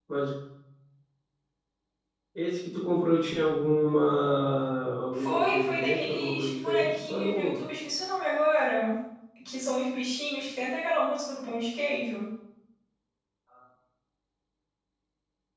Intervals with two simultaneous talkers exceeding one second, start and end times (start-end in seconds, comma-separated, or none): 5.1-7.7